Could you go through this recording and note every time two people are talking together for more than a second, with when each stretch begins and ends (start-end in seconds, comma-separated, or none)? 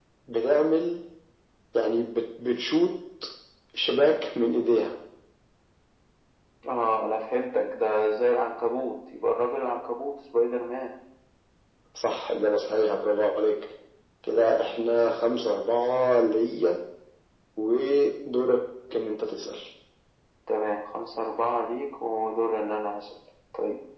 none